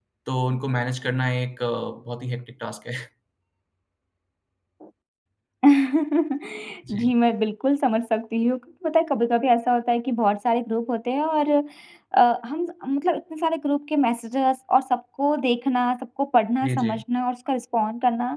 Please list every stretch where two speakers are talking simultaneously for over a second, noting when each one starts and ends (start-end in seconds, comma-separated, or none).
none